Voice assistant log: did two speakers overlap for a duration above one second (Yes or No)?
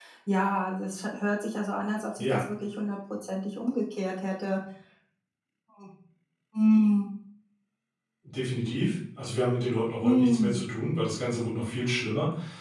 No